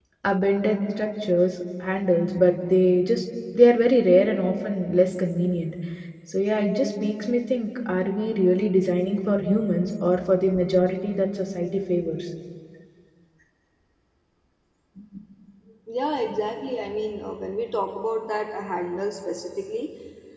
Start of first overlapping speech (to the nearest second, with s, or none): none